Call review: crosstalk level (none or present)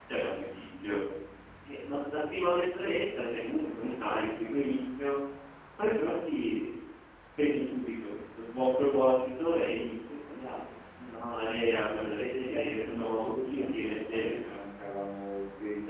present